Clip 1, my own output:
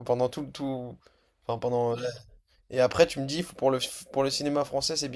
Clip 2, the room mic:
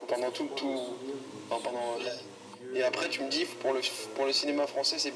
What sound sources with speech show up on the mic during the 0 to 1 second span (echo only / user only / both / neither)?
both